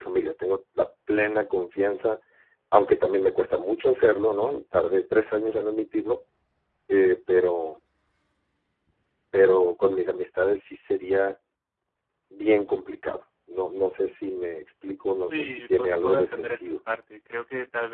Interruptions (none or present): present